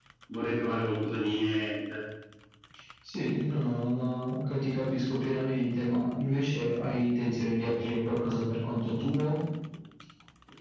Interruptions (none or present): none